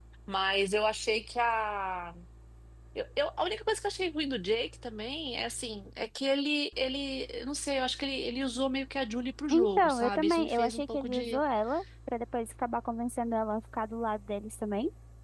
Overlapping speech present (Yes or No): Yes